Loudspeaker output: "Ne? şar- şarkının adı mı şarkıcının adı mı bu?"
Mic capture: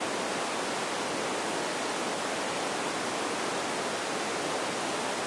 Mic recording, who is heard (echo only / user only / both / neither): neither